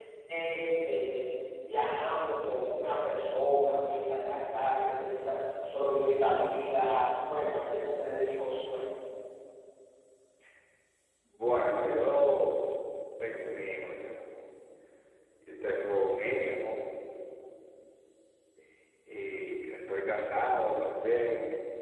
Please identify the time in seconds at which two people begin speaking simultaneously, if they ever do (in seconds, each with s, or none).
none